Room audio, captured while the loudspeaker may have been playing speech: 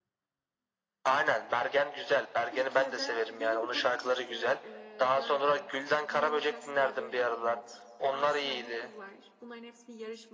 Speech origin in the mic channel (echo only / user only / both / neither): both